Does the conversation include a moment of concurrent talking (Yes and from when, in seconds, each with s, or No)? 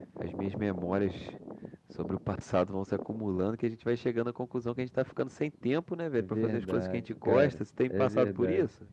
Yes, from 6.1 s